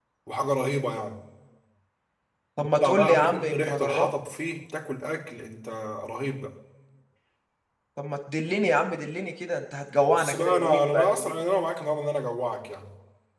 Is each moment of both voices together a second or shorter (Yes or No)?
No